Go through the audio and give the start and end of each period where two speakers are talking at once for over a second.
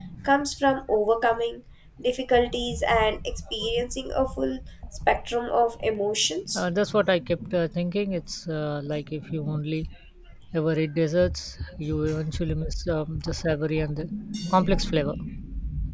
none

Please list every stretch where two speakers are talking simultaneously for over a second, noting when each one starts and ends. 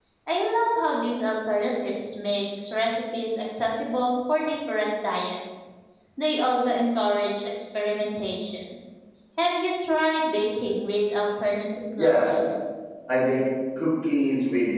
none

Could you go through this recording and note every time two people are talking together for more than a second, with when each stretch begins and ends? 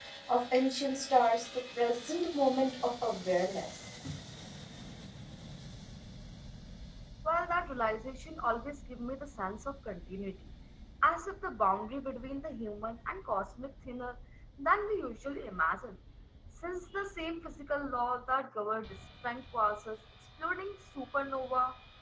none

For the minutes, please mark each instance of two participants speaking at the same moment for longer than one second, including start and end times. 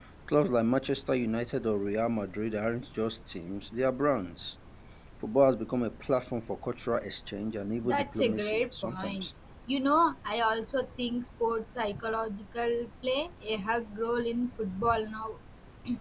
7.8-9.3

